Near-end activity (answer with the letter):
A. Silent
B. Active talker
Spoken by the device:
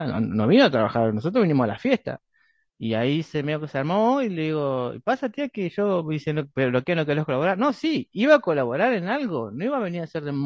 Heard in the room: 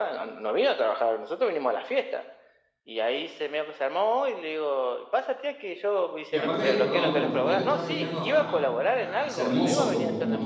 B